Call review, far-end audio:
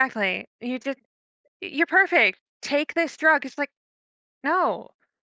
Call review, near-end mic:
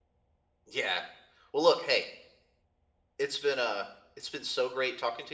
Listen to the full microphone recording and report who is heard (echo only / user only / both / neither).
user only